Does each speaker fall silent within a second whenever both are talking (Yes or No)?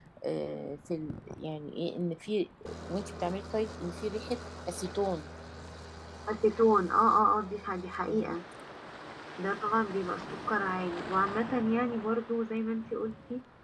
Yes